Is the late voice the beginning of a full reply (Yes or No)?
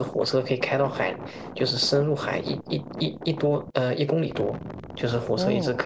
No